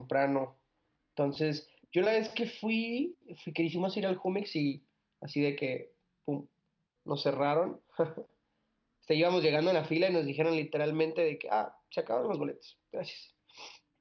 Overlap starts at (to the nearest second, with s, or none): none